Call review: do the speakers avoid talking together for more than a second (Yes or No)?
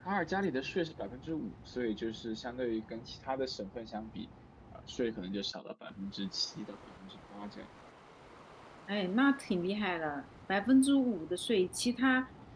Yes